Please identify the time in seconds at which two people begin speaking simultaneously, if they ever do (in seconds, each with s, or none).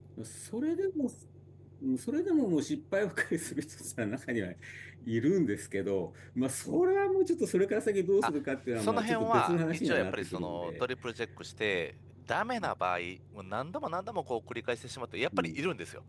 8.8 s